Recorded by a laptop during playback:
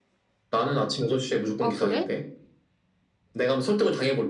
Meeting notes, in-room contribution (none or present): present